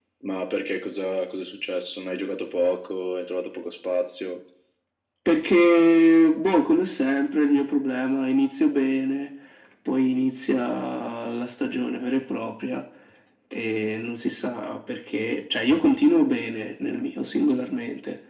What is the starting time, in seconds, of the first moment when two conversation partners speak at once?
none

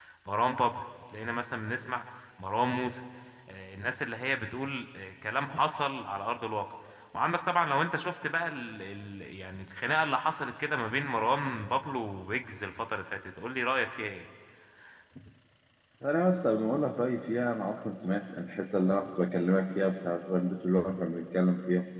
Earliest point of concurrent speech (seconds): none

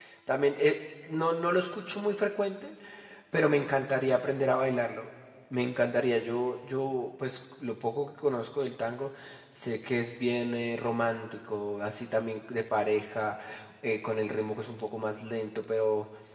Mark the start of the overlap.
none

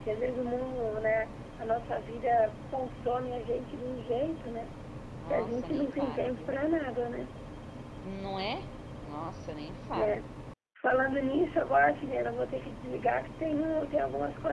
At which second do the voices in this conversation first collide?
5 s

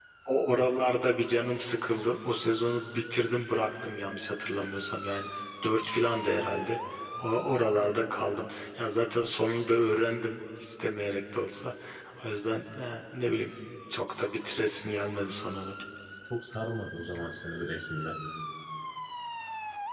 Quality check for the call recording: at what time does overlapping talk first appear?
none

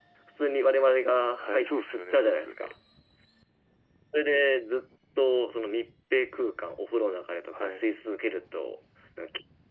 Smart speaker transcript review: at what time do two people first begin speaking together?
1 s

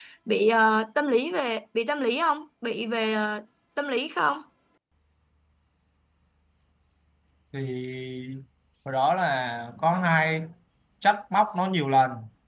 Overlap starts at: none

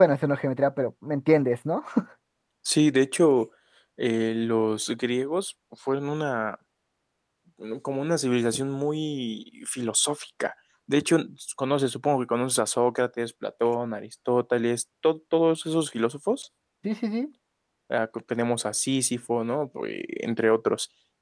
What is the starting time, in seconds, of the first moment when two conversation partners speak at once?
none

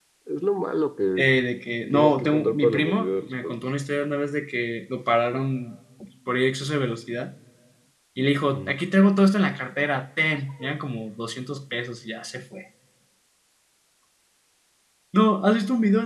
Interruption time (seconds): 2 s

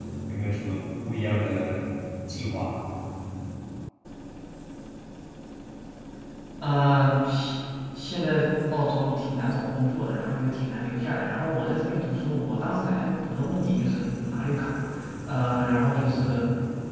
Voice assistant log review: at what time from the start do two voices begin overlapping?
none

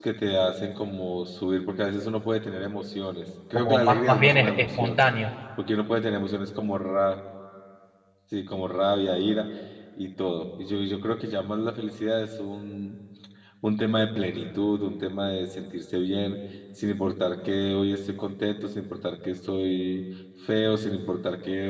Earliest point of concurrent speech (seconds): 4 s

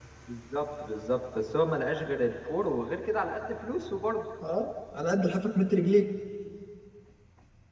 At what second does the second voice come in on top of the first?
none

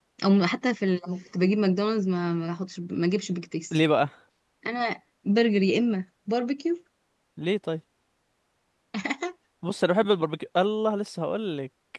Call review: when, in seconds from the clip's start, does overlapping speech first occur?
none

